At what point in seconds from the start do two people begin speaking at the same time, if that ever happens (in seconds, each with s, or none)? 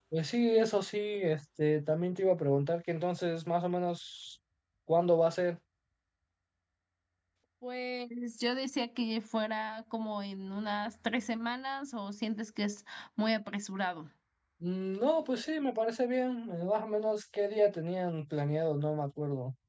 none